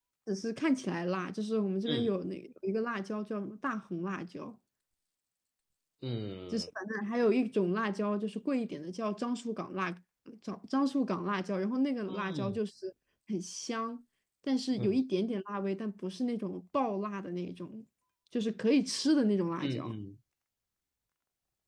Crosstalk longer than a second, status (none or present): none